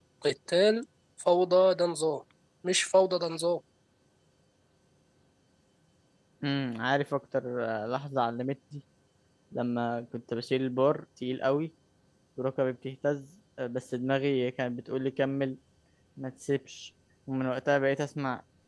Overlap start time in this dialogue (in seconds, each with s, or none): none